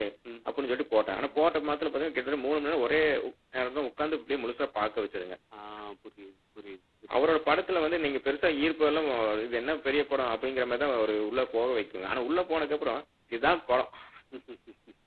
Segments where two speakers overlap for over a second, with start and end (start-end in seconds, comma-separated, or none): none